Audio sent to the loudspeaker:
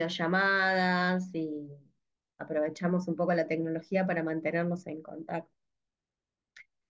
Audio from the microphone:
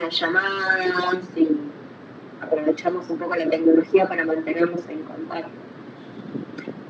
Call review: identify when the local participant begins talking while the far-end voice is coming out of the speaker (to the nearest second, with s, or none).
none